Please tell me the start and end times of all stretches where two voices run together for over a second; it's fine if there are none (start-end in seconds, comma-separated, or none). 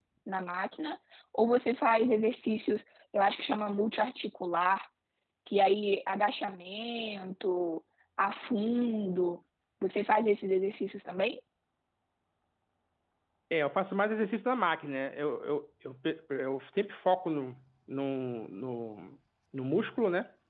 none